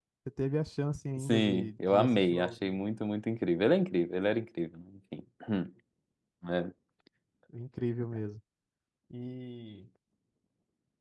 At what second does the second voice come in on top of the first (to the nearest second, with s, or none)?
1 s